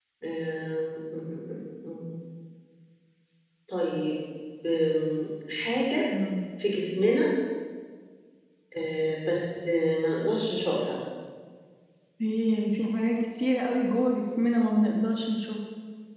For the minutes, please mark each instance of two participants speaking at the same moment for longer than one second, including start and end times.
none

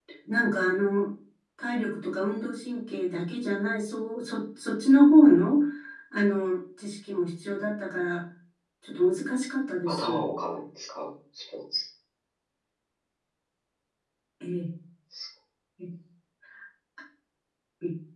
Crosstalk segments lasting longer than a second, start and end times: none

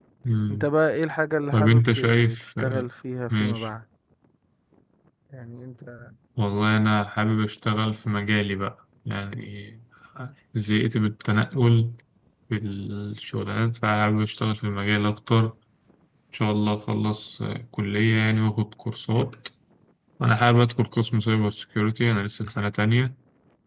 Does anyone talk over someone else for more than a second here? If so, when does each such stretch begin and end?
1.5-2.9

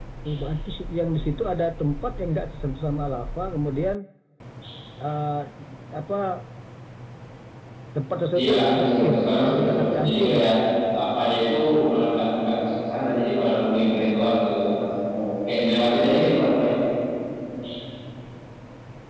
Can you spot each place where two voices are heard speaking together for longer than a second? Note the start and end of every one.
8.4-10.5

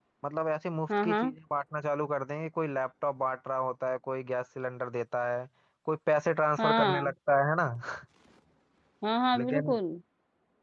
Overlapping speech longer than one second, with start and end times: none

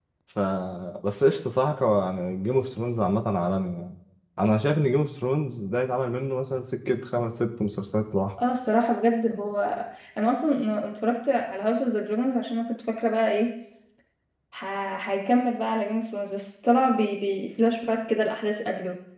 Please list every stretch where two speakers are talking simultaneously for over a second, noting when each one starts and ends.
none

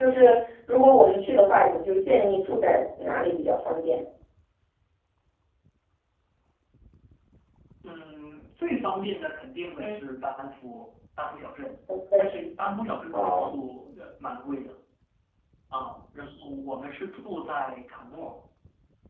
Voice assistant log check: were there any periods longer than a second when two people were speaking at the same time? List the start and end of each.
none

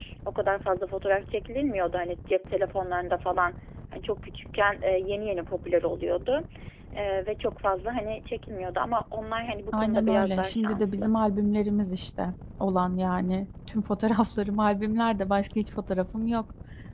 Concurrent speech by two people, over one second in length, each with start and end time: 9.7-11.1

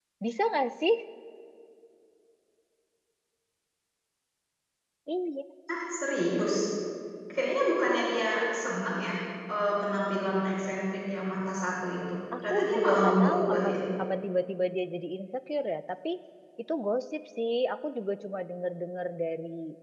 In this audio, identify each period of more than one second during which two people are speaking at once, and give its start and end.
12.4-13.8

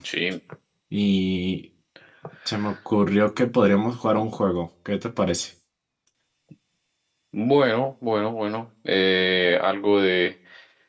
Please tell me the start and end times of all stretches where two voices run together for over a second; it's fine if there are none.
none

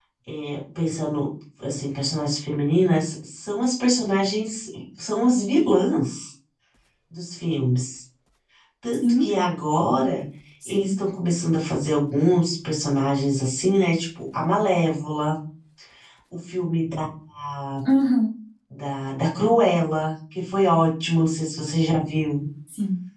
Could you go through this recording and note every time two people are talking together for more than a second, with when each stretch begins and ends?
none

